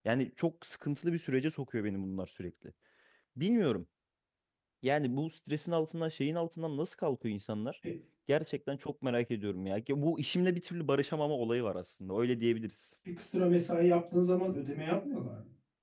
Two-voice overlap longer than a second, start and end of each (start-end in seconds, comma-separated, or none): none